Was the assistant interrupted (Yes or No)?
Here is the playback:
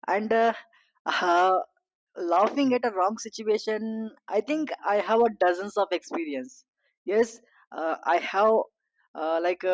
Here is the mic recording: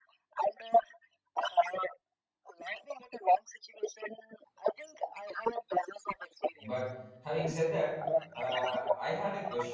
Yes